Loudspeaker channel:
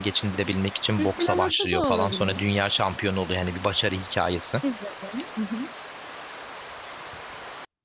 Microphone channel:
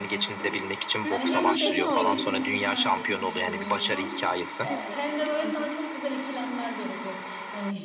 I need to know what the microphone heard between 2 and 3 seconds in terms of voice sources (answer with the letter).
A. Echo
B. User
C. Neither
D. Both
D